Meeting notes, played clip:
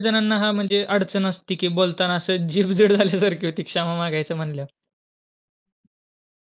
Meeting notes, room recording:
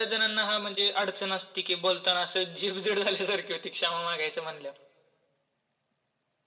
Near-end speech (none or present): none